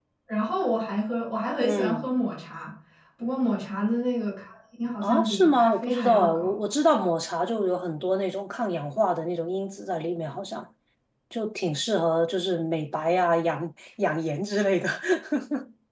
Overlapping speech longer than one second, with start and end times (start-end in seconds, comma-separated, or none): 5.0-6.5